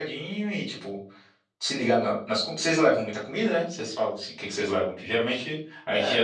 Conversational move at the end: listening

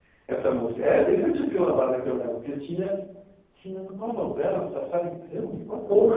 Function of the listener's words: listening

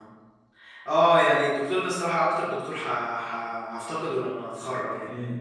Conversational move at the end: listening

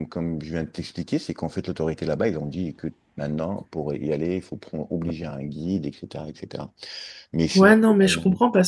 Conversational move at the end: taking over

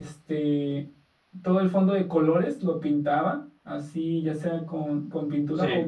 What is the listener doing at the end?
listening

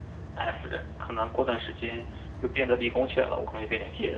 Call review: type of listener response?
taking over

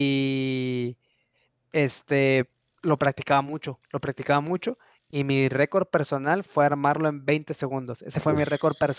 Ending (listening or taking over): listening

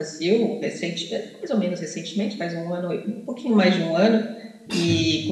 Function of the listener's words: listening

